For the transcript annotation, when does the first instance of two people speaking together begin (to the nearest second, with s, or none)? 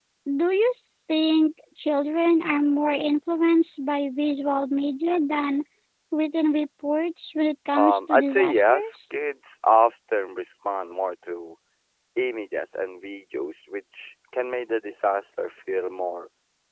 8 s